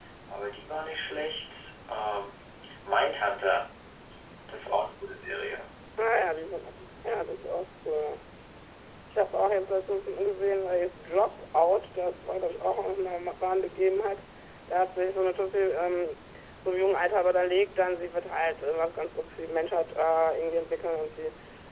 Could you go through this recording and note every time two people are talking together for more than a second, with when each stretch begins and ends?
none

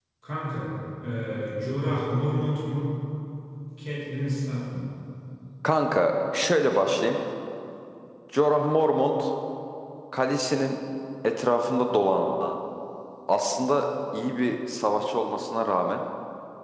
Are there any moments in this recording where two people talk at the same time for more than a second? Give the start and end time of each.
none

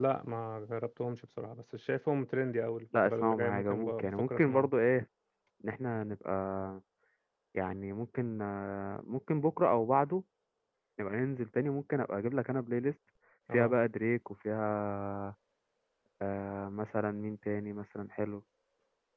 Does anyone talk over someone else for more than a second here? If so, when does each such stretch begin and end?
2.9-4.7

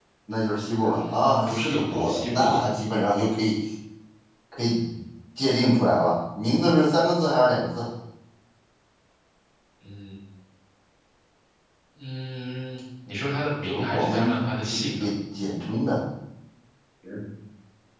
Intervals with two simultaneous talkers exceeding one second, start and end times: 0.8-2.6, 13.7-15.0

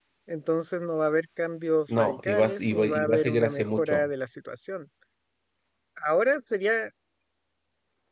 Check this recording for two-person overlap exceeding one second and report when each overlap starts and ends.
2.0-4.1

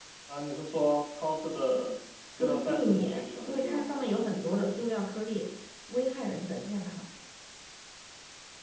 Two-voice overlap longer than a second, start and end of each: 2.4-3.8

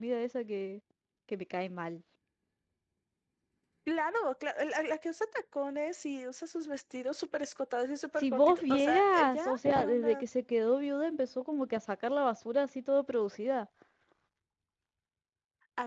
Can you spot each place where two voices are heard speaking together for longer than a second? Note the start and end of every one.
8.2-10.2

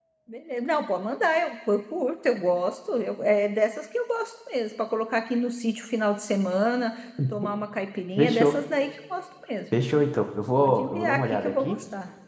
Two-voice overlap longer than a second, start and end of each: 10.6-11.8

